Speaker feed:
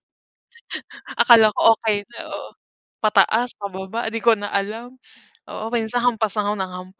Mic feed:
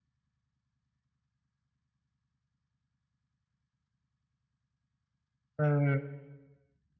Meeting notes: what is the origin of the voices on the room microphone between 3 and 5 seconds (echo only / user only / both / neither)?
neither